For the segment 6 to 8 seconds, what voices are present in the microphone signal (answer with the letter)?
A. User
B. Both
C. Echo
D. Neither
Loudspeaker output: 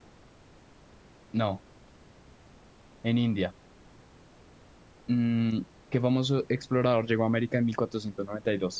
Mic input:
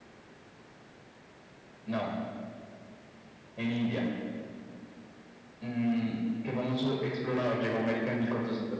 C